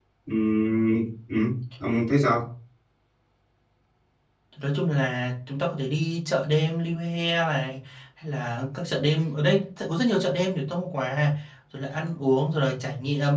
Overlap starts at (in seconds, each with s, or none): none